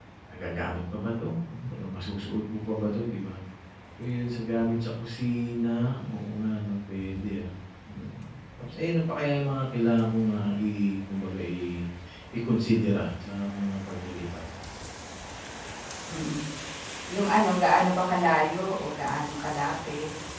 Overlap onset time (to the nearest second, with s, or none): none